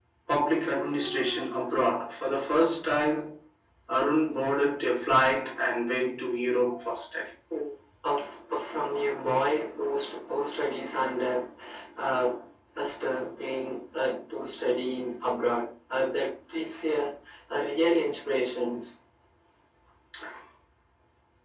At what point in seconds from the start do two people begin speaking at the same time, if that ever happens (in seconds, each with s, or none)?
none